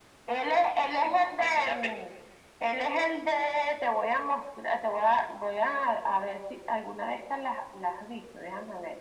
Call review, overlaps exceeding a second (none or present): present